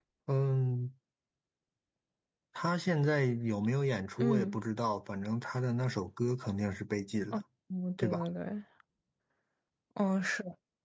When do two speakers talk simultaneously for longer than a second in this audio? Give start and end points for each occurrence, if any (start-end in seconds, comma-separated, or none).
none